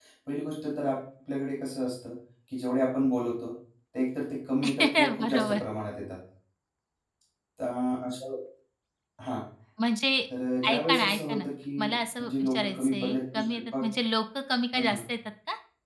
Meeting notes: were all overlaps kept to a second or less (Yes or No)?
No